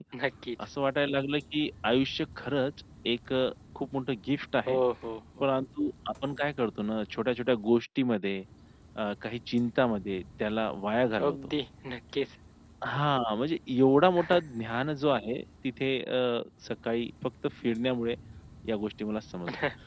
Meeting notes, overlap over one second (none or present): none